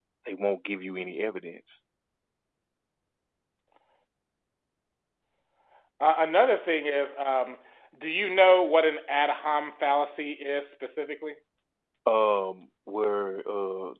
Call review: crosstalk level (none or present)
none